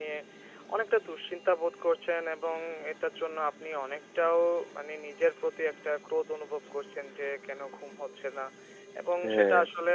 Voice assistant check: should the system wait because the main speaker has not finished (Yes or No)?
Yes